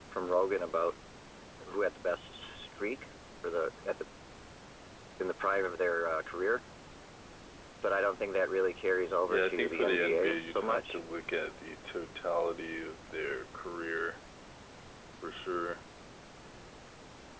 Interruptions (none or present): present